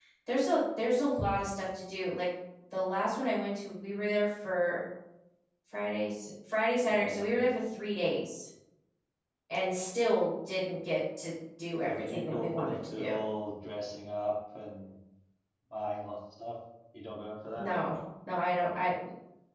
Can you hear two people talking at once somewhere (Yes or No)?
Yes